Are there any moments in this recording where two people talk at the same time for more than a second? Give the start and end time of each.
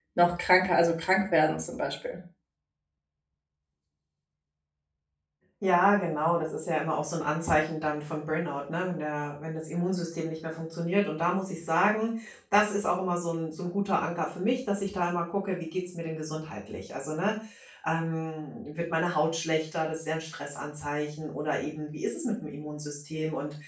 none

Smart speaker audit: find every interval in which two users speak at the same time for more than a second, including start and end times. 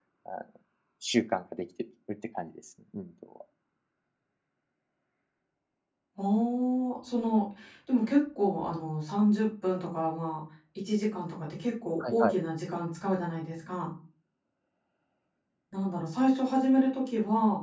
none

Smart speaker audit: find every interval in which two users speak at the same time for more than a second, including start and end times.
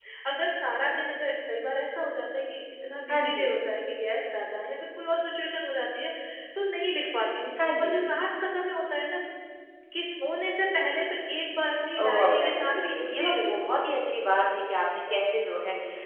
12.0-13.9

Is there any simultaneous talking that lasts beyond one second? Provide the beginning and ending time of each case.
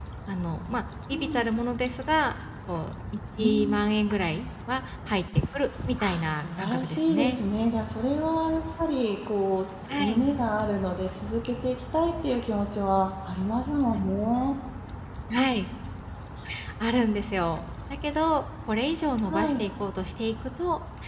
6.0-7.4

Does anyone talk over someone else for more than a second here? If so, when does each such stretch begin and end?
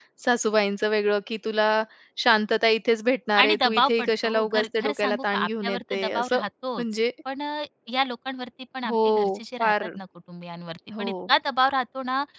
3.4-6.4

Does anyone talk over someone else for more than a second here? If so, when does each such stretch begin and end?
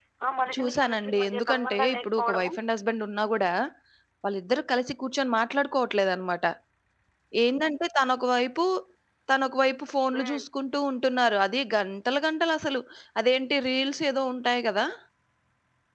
0.5-2.5

